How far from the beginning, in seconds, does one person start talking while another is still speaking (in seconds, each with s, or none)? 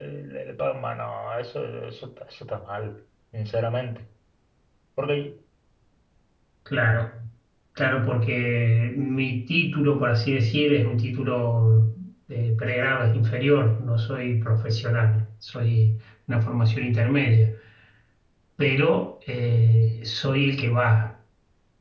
none